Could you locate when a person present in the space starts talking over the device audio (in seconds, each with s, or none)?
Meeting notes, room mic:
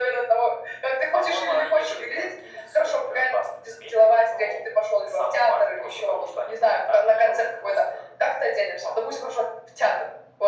none